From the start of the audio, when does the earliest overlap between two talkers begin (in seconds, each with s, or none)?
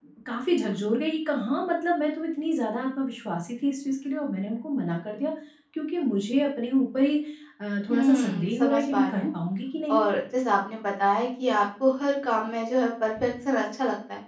7.9 s